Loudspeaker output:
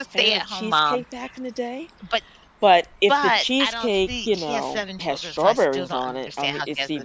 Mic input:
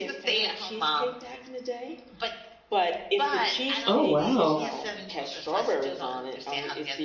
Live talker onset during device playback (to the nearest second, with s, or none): 4 s